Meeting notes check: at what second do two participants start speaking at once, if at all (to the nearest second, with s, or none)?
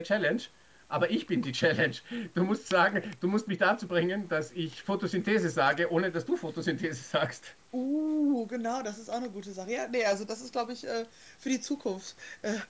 none